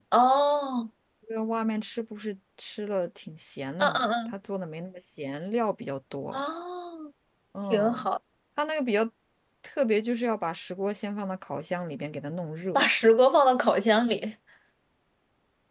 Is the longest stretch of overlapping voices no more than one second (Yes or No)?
Yes